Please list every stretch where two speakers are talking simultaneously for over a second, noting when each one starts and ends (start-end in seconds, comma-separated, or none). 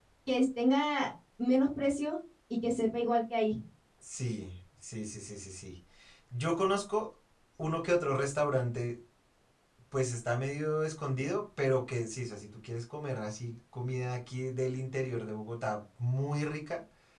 none